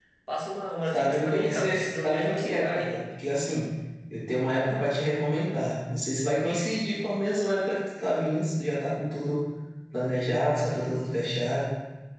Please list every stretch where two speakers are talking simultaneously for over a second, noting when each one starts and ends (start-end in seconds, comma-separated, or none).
0.9-2.9